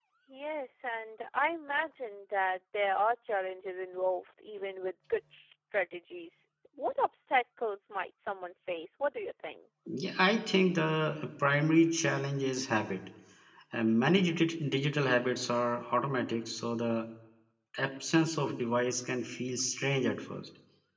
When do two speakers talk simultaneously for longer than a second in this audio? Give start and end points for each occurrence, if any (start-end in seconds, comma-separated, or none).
none